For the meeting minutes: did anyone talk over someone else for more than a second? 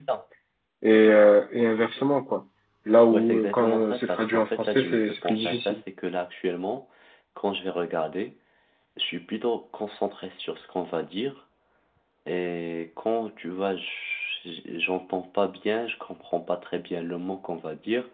Yes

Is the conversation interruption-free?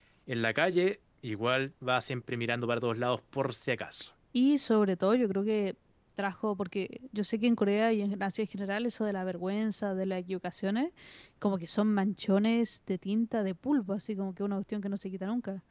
Yes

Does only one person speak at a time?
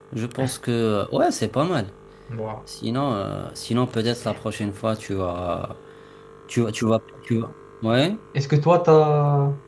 Yes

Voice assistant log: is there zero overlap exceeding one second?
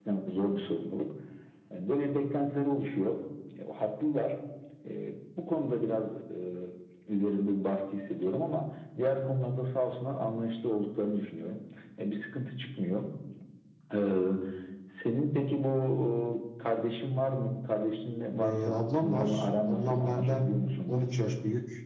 No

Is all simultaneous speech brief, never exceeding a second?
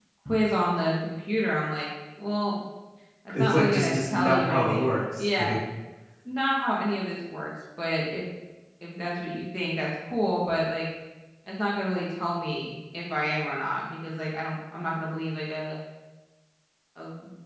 No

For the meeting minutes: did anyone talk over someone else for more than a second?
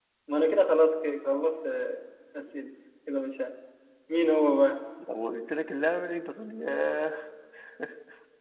No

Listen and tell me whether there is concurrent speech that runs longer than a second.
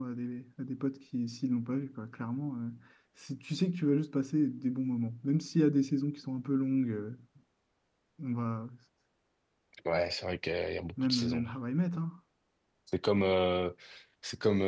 No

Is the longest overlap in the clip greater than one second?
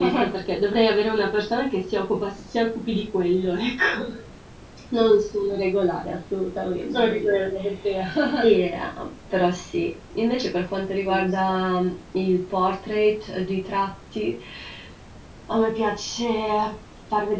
No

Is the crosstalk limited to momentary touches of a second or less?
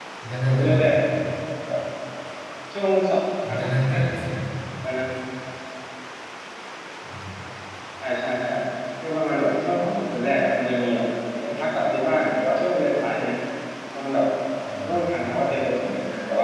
Yes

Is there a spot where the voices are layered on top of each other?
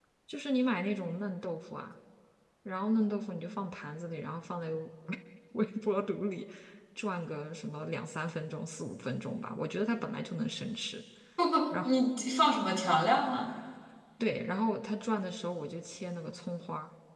No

